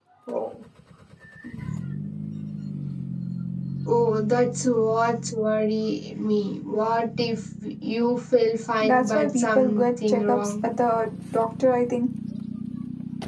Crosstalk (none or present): present